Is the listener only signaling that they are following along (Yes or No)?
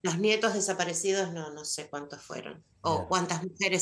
Yes